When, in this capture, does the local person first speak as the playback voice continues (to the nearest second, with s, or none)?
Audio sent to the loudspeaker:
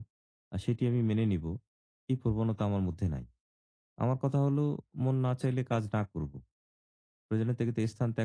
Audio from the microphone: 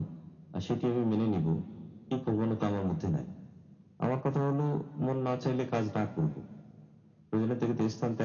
none